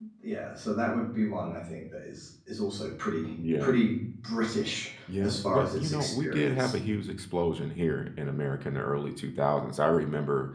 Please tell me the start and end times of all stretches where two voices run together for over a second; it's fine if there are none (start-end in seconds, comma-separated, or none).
5.2-6.7